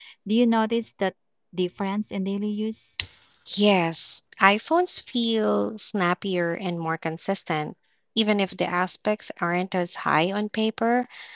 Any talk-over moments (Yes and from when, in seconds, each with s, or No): No